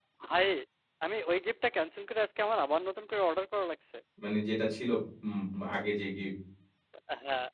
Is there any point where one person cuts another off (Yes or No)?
No